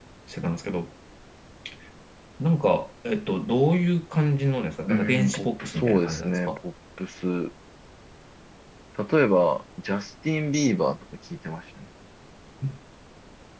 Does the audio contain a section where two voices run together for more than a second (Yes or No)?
Yes